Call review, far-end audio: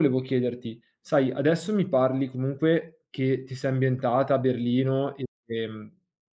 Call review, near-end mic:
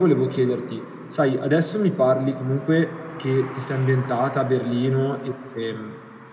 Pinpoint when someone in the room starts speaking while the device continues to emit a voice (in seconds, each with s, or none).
none